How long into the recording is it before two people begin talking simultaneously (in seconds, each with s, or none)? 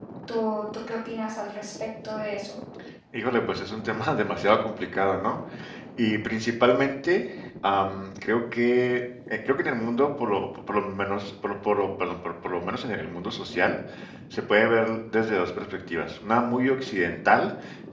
none